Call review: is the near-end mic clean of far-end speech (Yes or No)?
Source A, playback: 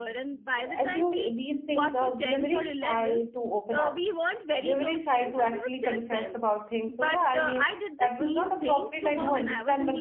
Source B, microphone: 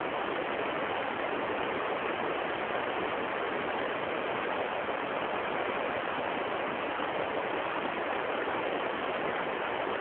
Yes